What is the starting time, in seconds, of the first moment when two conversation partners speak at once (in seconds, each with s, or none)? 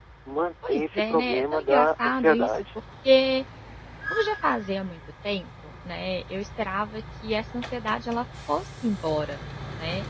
0.7 s